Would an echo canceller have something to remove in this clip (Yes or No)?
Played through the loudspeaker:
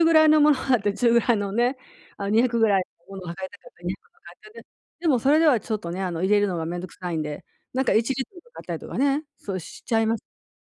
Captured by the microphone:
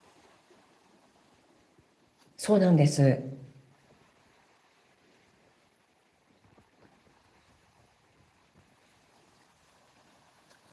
No